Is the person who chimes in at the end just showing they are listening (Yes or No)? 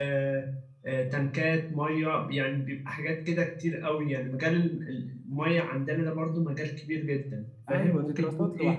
No